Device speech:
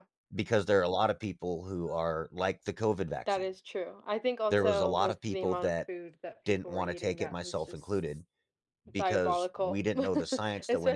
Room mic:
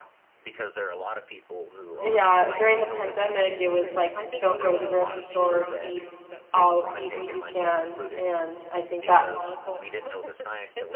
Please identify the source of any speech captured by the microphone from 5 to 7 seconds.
both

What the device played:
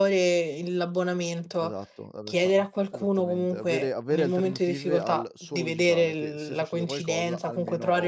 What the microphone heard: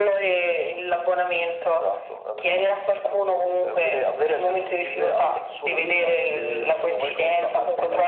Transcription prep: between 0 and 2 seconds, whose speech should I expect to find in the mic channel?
echo only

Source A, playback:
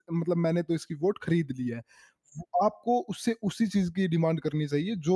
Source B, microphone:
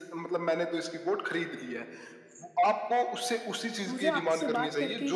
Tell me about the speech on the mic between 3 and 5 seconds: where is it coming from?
both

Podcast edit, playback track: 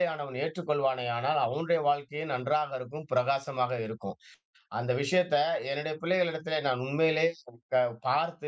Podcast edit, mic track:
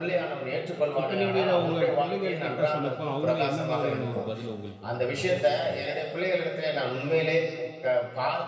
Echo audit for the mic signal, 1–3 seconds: both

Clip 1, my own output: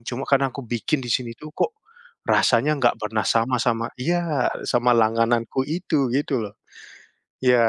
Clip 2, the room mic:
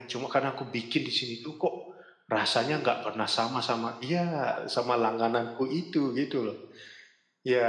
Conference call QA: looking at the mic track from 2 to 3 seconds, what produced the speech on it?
both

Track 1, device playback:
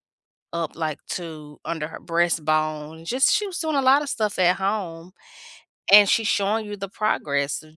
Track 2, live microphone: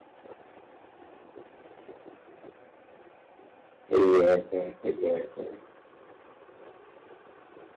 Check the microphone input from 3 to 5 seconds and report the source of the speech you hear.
user only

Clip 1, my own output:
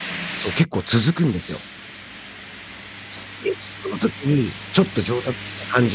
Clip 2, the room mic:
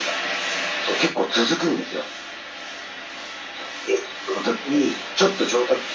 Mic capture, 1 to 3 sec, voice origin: echo only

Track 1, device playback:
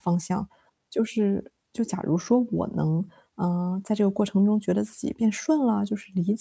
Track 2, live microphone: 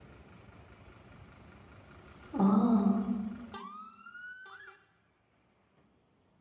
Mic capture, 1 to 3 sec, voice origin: user only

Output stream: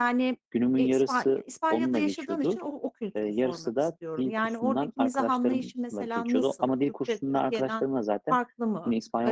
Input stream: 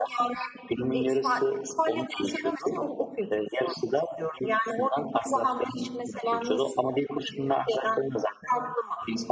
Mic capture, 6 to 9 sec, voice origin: echo only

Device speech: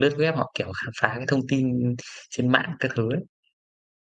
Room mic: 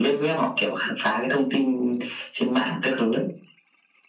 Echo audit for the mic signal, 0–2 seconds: echo only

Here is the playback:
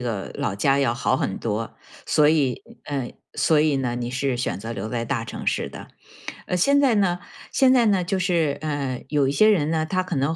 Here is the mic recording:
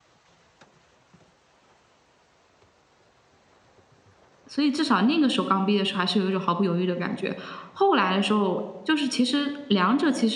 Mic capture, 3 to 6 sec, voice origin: user only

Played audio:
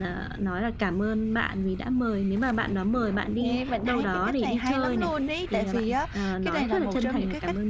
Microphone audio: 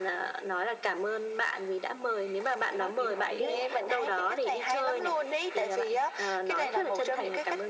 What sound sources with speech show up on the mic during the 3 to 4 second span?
both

